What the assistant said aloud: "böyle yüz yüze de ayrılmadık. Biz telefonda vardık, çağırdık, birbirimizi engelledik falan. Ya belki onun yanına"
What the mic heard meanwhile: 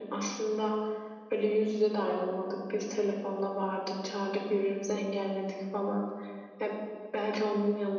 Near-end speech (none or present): none